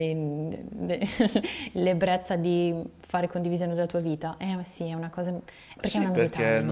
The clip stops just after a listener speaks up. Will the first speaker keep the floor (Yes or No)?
No